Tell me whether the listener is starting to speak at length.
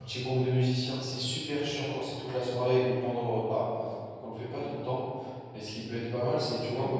No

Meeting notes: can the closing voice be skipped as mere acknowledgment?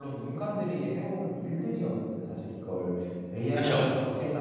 Yes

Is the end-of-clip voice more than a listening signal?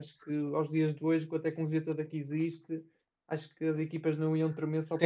Yes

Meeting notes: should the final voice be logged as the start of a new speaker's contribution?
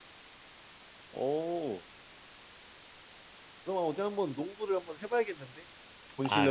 Yes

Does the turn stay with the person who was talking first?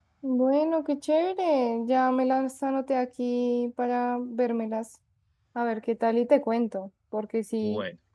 Yes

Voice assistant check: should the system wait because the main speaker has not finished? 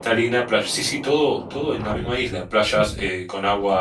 Yes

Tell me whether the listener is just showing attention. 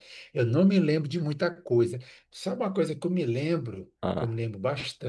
Yes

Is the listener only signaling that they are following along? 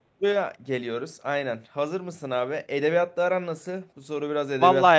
No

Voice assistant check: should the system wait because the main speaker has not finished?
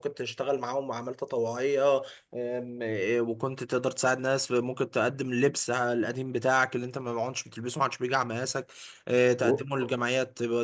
Yes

